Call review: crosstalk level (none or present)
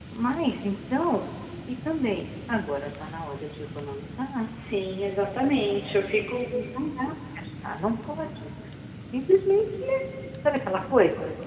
none